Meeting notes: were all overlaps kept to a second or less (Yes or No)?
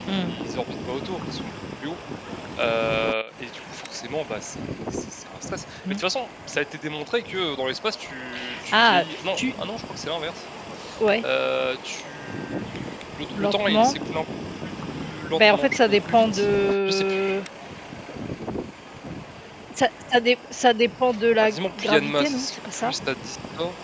No